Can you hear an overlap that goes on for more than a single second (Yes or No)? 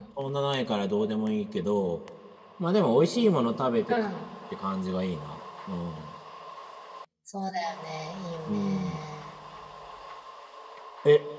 No